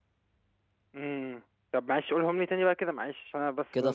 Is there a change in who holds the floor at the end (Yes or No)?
Yes